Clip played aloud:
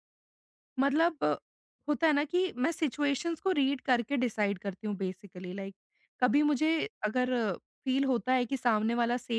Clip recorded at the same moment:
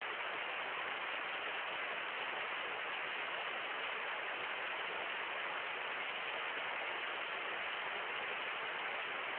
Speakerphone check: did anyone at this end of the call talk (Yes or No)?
No